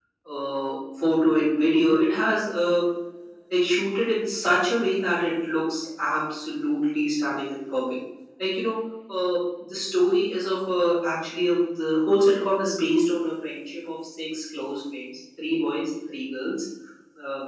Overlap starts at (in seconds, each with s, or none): none